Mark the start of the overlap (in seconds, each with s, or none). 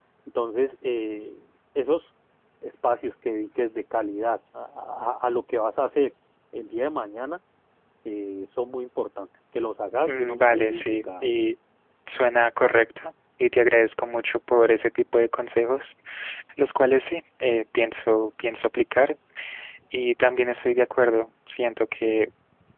10.1 s